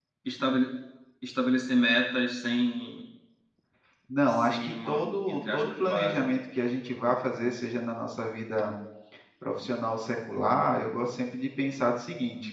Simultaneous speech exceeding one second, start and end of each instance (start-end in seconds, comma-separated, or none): 4.3-6.3